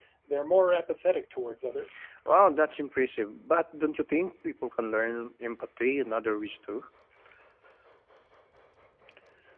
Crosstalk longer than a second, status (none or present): none